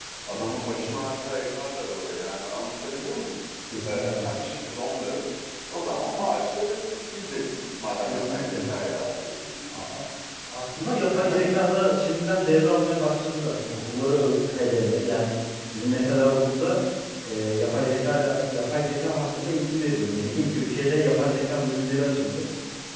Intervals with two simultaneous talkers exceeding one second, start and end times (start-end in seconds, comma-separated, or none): none